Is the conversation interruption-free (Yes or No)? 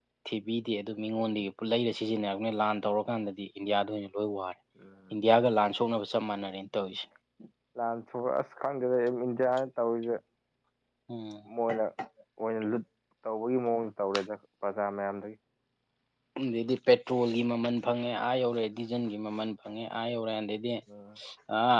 Yes